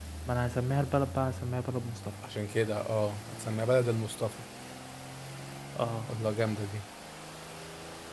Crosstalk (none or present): none